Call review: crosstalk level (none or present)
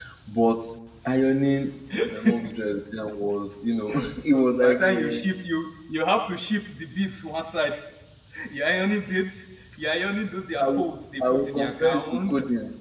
present